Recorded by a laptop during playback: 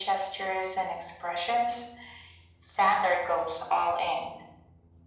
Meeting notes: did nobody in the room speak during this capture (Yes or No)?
Yes